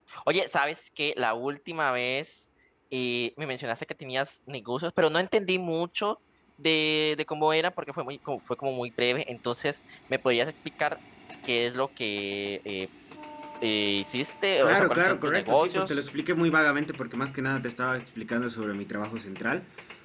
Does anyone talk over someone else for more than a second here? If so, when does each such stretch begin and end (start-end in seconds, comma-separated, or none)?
14.6-16.1